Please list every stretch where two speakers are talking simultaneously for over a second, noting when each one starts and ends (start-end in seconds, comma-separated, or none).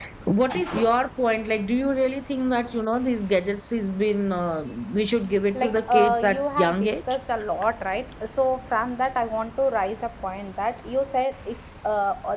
5.5-7.0